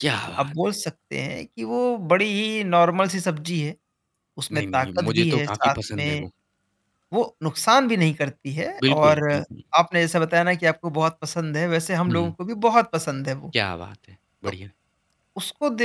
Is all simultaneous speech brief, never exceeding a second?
No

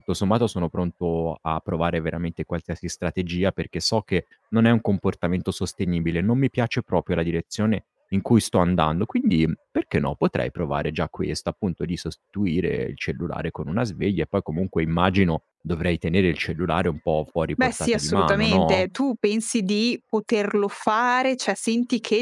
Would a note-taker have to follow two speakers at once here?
Yes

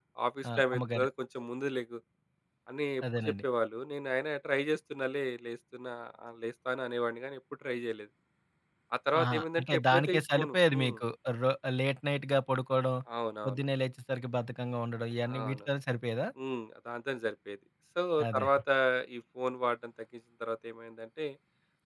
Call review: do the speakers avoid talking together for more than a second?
No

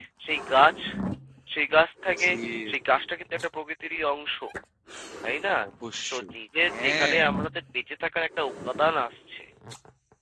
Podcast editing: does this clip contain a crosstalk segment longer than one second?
No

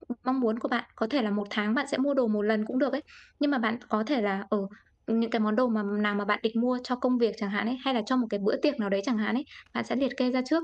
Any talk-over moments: No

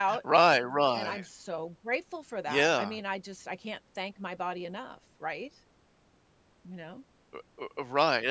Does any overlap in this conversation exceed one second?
No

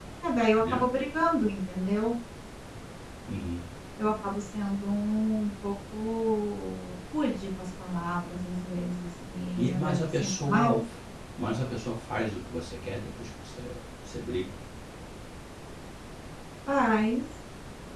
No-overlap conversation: No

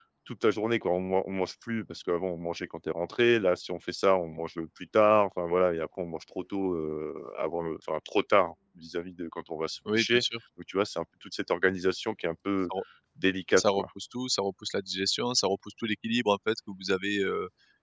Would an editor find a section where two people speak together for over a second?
No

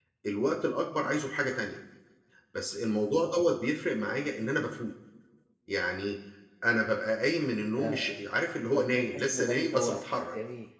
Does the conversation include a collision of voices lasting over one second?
Yes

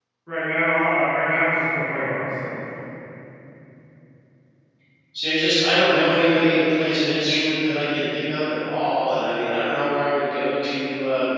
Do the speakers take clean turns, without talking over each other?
Yes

